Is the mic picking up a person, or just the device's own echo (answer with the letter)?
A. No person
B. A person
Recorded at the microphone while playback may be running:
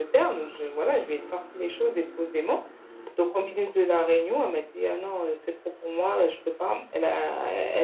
A